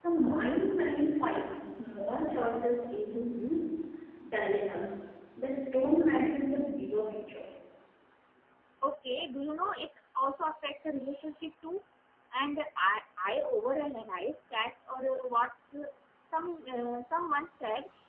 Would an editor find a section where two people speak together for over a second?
No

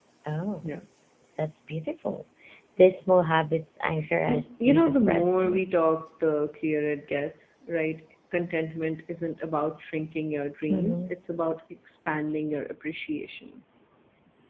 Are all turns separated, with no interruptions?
No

